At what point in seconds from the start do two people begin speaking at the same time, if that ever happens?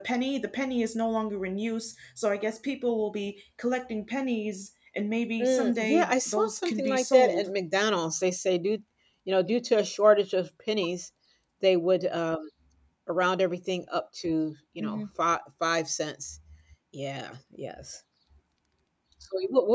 5.4 s

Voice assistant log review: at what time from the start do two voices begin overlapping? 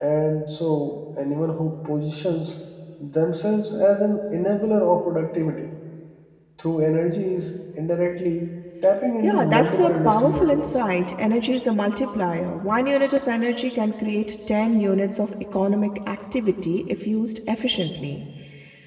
9.2 s

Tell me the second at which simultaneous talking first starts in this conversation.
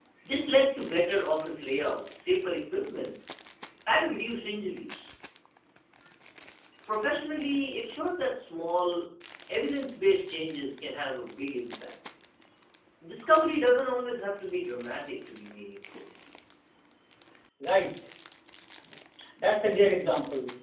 none

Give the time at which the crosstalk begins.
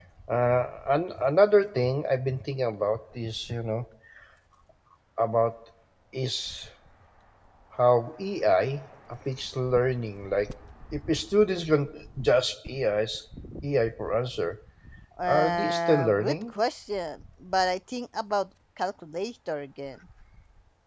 15.3 s

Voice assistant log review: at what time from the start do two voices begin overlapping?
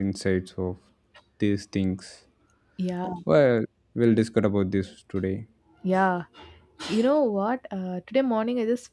none

